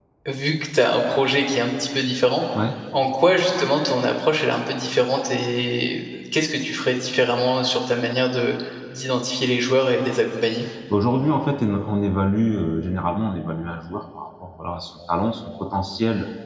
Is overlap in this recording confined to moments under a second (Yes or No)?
Yes